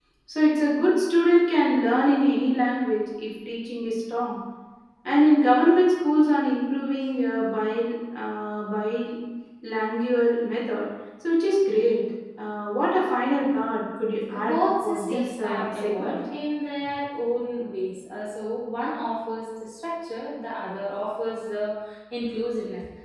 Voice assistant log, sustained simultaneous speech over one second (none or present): present